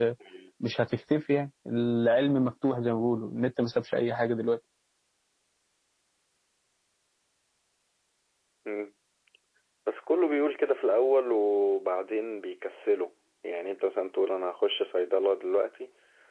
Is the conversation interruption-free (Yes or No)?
Yes